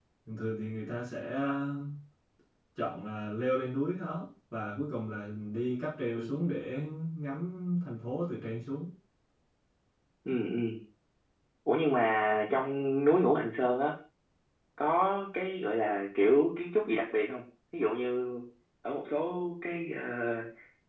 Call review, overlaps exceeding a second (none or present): none